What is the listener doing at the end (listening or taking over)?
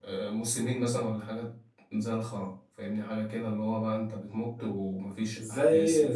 taking over